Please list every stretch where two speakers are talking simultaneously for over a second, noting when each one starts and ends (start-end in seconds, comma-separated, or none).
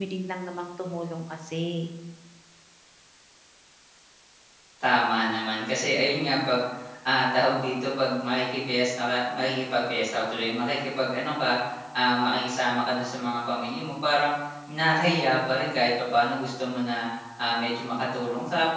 none